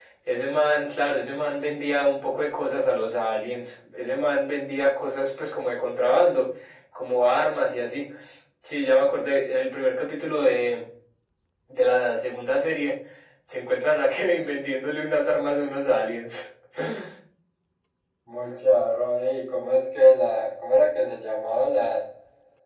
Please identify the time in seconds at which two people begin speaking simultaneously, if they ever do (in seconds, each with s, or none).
none